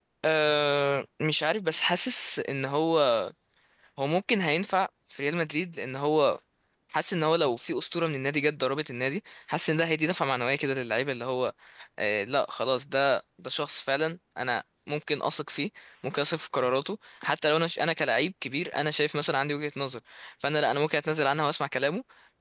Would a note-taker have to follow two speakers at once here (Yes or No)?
No